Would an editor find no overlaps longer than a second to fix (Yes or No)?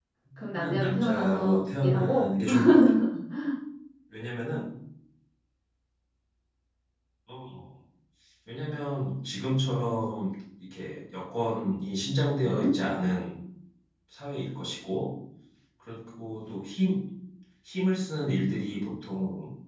No